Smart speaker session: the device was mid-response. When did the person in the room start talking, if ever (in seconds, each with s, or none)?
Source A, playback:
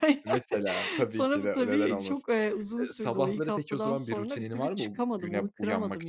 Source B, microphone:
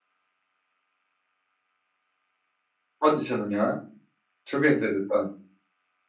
3.0 s